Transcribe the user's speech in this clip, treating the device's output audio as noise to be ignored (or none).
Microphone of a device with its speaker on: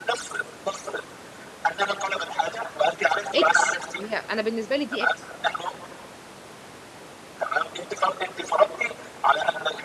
اكس هي انا بالنسبه لي دي اكس